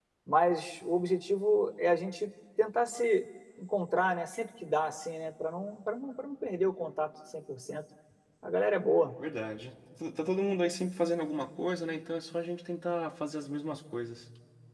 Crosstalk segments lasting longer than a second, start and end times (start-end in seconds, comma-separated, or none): none